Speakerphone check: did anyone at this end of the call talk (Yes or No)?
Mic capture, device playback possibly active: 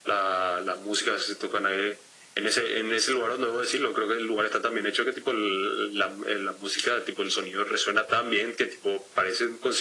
No